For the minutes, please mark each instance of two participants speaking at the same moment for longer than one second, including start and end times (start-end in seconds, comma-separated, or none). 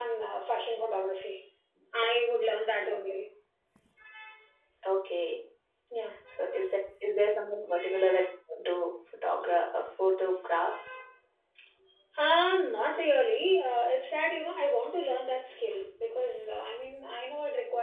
none